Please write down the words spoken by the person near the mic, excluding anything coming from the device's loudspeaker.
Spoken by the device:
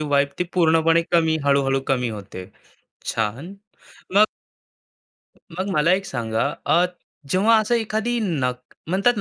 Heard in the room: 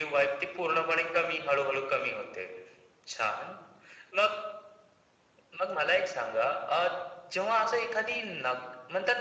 none

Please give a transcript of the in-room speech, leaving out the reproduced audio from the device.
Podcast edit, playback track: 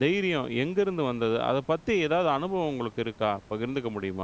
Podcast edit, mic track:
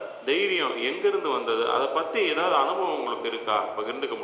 none

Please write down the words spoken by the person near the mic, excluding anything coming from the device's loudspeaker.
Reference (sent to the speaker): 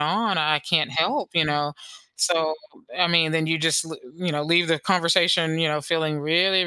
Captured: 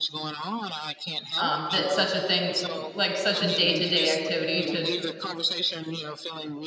um, that such a thing, like such a day-to-day activity to

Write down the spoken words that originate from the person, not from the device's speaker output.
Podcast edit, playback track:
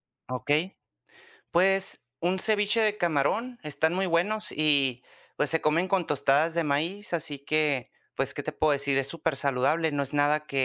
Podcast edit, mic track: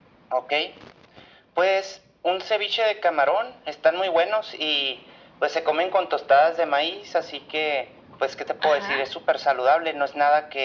Ajá,

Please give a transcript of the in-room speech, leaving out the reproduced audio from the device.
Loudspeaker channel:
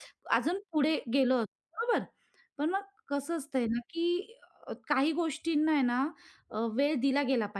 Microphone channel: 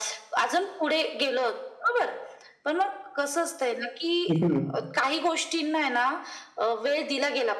हं, हं.

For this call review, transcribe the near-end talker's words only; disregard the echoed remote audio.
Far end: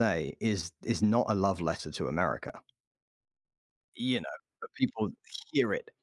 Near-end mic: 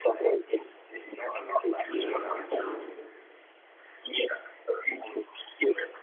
Yeah. Extremely.

